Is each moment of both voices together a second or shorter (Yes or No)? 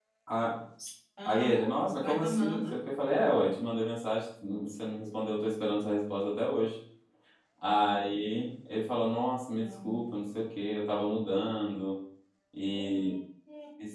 No